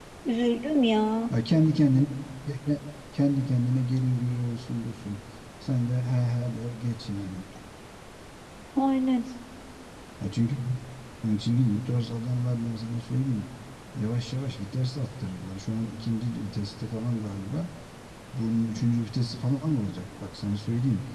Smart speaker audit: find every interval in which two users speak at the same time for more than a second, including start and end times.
none

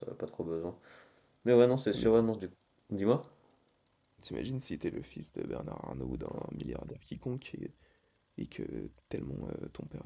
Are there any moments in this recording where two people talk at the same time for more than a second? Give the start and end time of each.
none

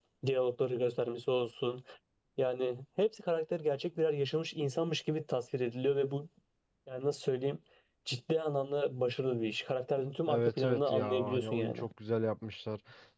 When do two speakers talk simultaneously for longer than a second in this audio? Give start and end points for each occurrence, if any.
10.3-11.9

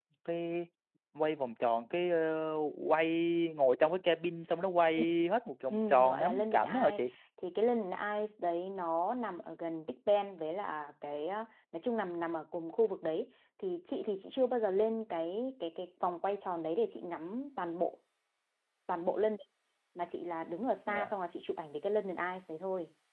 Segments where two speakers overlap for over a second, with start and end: 5.7-7.0

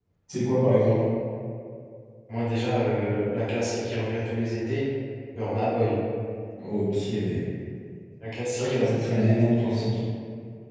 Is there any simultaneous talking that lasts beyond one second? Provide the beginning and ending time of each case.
8.6-10.0

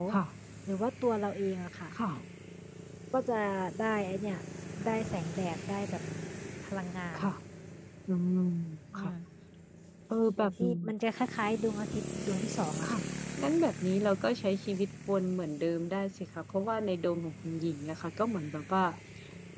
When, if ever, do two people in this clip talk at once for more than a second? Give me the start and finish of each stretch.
none

